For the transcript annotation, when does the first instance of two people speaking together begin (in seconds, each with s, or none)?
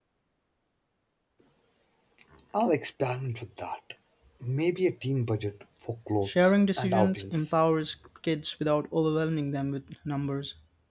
6.2 s